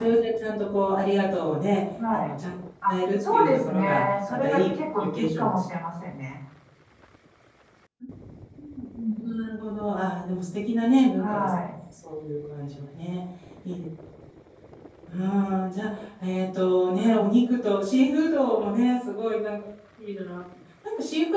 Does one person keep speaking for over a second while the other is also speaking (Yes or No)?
Yes